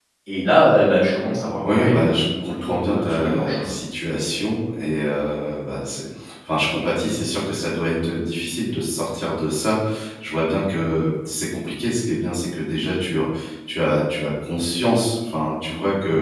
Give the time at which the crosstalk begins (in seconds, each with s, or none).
1.6 s